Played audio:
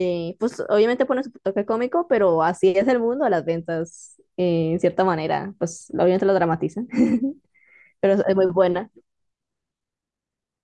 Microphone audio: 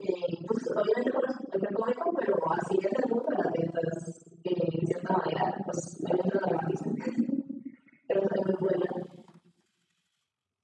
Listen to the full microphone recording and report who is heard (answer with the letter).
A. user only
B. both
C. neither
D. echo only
D